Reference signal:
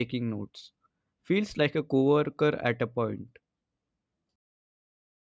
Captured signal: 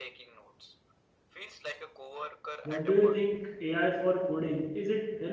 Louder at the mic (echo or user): user